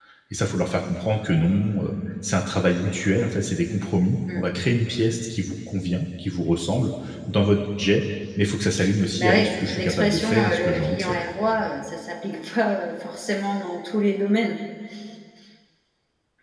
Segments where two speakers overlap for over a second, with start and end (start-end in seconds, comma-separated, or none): 9.2-11.2